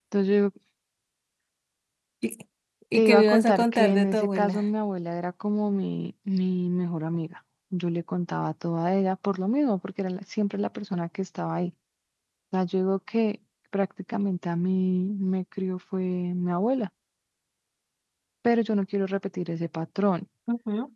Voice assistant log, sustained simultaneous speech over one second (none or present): present